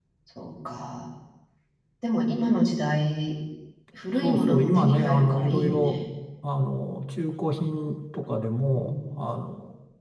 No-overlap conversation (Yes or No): No